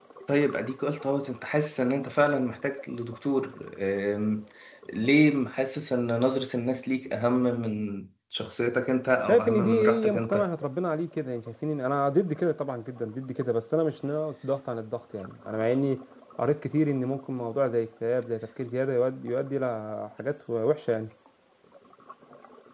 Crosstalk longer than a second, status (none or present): present